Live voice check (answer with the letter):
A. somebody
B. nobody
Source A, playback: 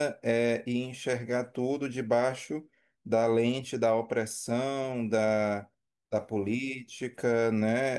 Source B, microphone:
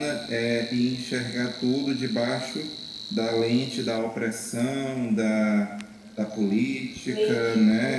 A